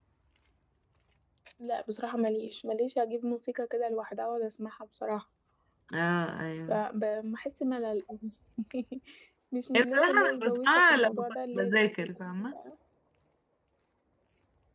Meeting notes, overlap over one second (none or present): present